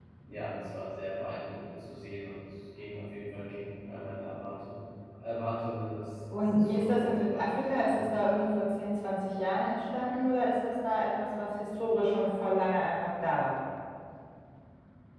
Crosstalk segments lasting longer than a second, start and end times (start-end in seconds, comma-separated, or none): 6.3-8.1